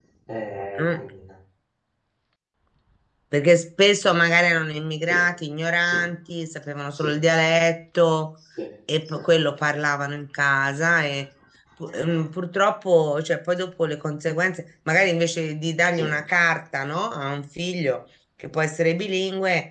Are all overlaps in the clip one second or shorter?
Yes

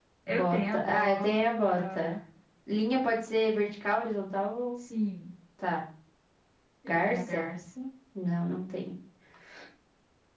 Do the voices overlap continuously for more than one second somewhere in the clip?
Yes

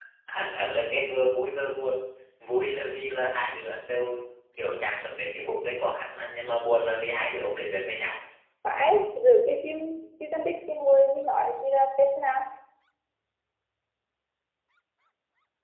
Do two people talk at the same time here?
No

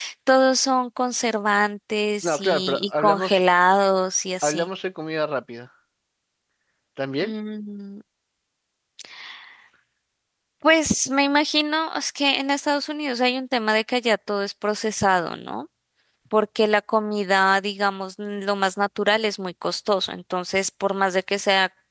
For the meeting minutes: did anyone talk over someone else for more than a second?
Yes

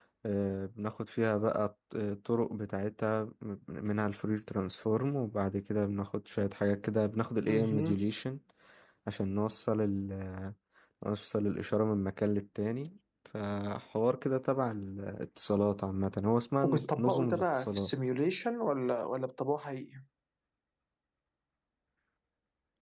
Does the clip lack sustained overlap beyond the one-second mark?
No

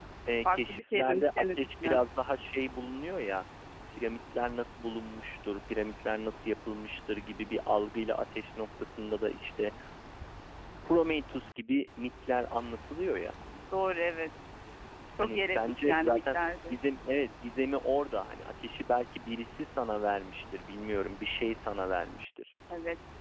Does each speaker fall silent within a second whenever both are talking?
No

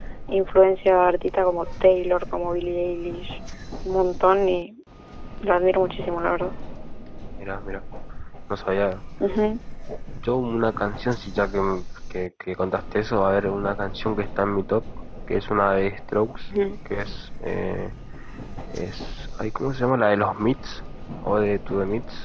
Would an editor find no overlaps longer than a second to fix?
Yes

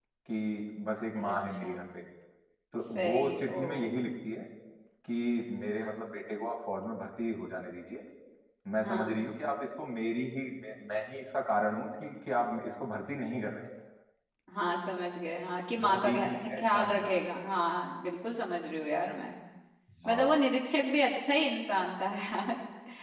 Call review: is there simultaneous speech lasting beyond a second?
Yes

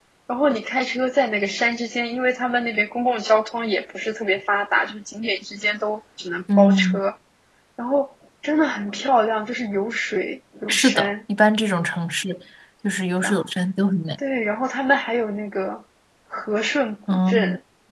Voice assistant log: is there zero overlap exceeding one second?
Yes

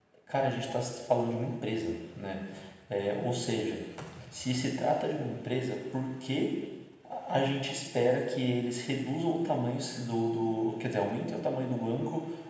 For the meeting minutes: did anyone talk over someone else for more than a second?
No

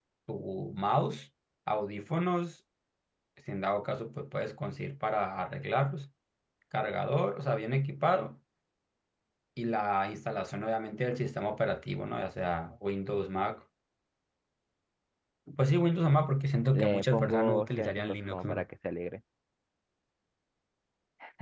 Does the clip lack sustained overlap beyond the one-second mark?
No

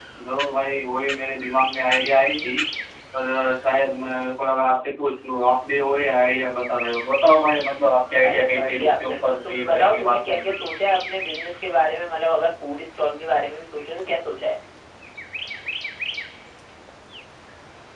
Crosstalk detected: Yes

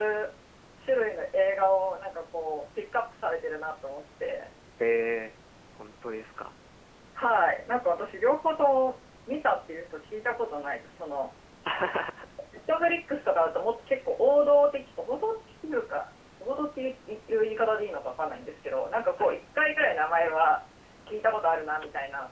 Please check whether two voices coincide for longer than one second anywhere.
No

